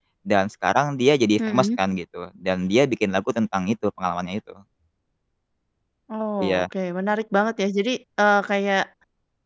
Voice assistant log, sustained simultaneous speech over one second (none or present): none